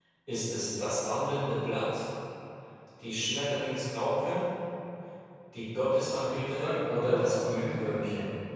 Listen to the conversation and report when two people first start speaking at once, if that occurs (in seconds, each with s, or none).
6.2 s